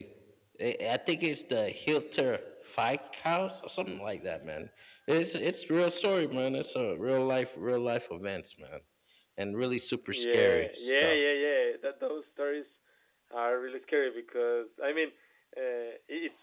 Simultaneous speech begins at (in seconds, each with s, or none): 10.0 s